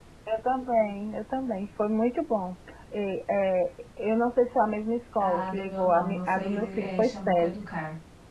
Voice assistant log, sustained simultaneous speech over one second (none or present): present